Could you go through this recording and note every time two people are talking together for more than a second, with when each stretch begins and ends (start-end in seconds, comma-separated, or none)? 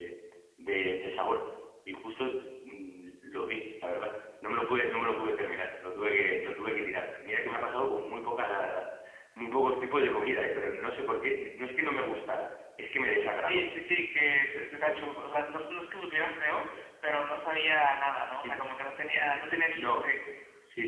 none